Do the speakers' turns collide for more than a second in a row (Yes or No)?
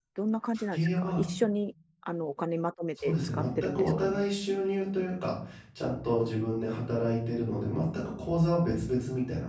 Yes